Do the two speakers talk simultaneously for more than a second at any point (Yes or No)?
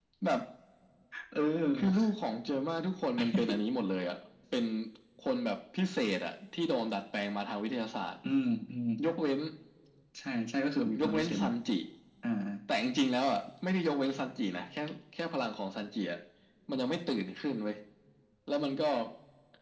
No